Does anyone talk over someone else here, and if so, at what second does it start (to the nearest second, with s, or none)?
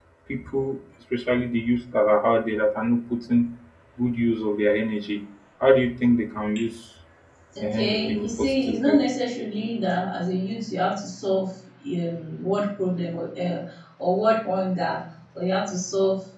8 s